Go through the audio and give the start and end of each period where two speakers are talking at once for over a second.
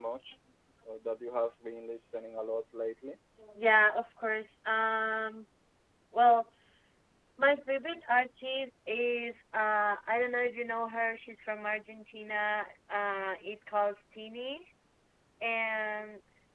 none

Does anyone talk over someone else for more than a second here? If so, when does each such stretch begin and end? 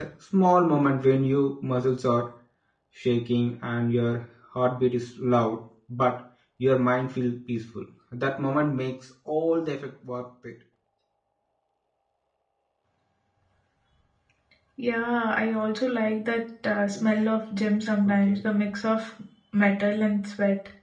none

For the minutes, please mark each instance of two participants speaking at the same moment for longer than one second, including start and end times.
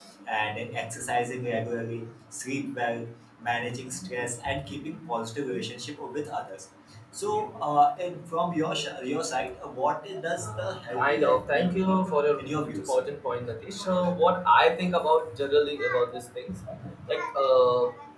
10.4-11.7

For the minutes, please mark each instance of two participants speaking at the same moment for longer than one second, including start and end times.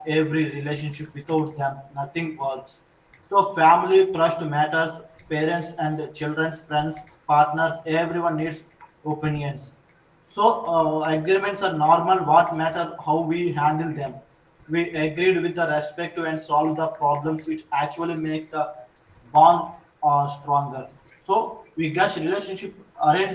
none

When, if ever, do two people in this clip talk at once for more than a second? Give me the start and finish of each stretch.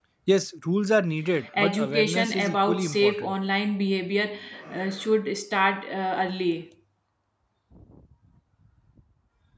1.6-3.3

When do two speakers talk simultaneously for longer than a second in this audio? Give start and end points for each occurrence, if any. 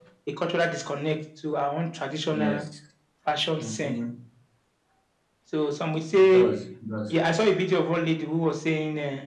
none

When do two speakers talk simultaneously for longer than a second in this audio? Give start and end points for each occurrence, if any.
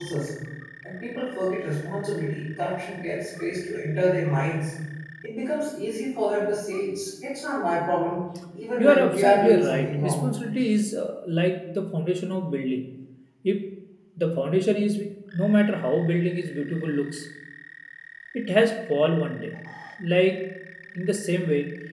8.8-10.3

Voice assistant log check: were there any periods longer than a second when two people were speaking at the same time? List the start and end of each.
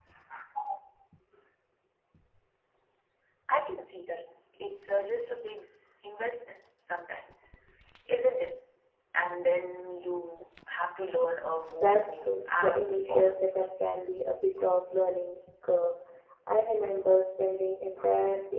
11.8-14.0

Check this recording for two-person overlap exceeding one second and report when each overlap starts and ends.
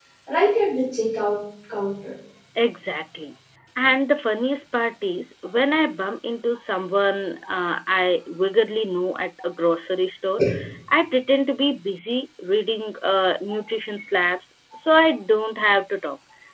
none

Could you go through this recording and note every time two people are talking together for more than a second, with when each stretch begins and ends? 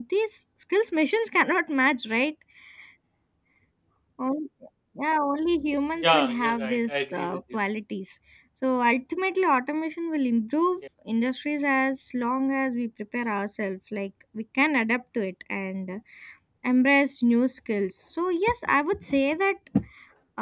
6.0-7.6

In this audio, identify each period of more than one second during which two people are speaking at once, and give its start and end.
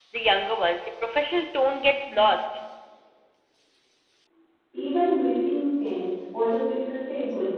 none

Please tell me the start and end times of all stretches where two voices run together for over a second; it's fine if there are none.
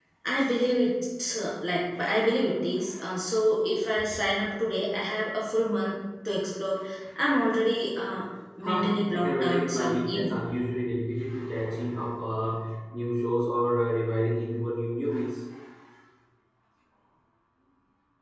8.6-10.4

